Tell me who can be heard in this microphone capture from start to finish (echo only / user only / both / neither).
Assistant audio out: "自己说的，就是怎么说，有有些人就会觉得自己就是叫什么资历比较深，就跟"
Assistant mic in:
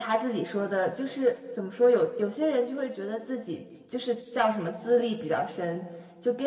echo only